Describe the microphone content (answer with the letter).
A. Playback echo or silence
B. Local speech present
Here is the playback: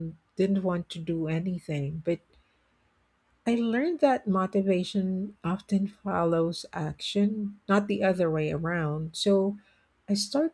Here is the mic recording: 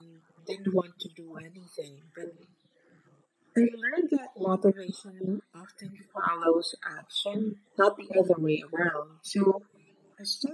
A